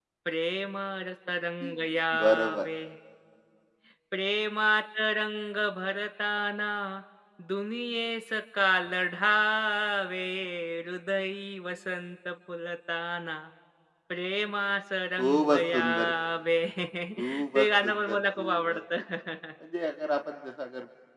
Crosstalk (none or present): present